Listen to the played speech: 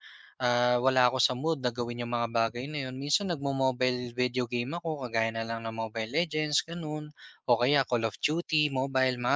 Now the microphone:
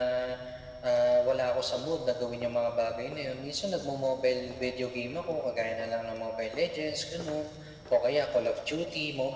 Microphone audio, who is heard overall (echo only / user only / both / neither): echo only